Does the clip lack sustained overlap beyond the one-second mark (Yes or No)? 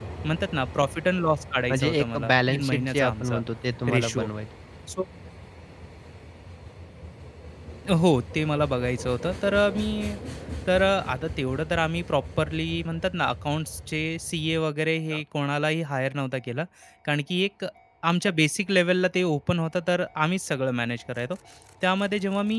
No